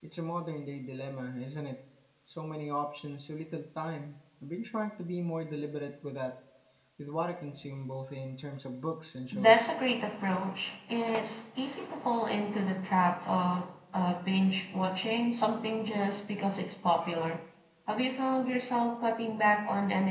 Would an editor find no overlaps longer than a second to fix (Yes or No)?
Yes